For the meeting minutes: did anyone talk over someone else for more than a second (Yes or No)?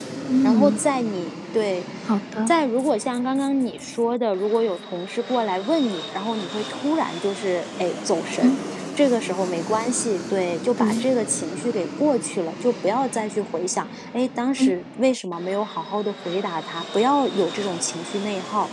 No